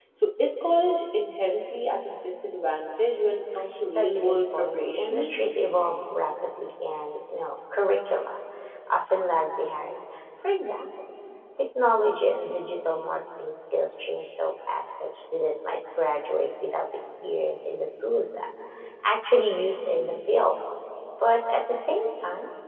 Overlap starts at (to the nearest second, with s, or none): 4 s